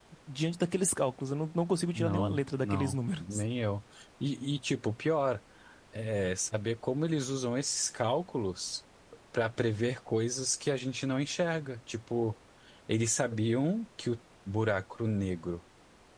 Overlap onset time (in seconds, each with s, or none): 2.0 s